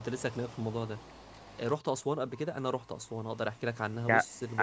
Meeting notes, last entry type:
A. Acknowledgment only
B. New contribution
B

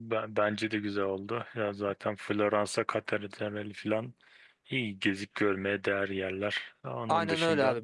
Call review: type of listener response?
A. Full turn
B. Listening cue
A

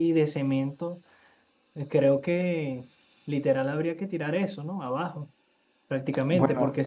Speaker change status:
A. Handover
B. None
B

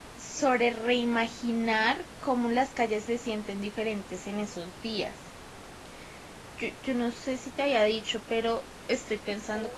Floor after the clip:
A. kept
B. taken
A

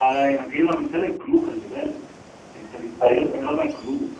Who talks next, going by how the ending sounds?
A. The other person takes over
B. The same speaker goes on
B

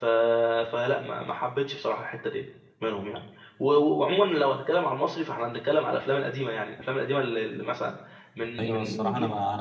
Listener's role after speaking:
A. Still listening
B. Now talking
B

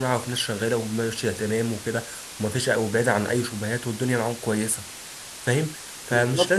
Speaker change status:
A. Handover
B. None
A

